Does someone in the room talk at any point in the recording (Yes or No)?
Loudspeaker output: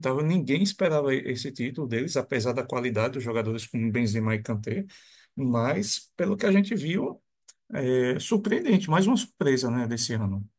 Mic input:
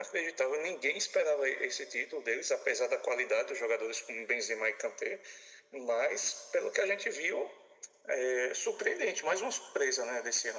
No